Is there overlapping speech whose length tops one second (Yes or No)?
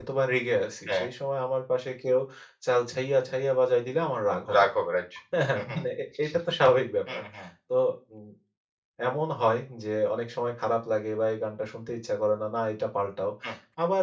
No